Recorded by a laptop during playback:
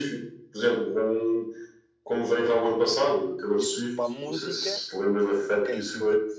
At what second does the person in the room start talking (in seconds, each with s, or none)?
2.3 s